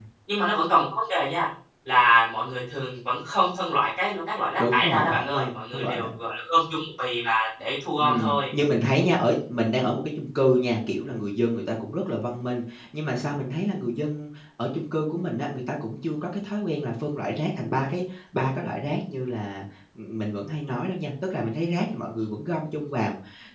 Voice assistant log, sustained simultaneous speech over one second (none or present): present